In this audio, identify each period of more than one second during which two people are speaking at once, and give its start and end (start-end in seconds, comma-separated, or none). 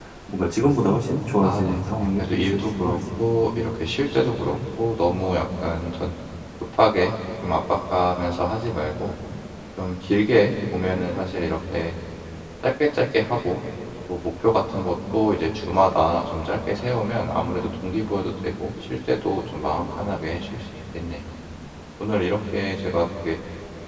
1.4-3.0